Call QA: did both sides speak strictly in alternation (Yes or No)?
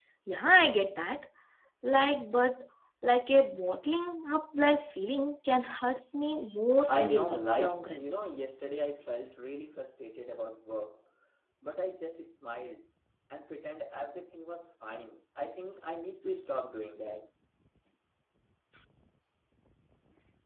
No